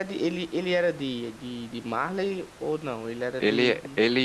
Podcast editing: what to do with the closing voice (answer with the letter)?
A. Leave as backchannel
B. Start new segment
B